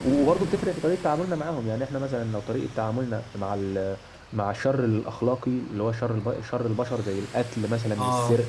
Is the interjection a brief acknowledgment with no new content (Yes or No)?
Yes